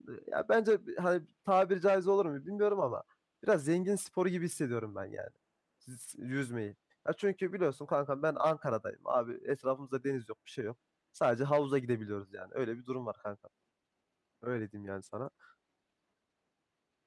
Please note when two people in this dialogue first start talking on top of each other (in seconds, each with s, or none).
none